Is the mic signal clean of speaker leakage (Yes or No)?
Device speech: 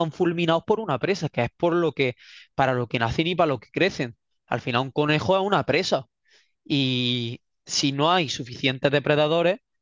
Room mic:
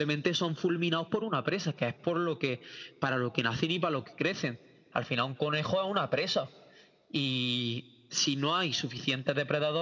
No